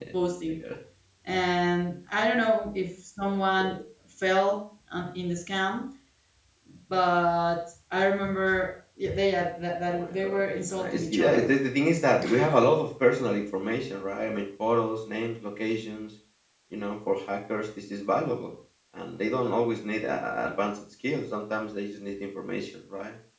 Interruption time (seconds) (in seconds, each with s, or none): 9.9 s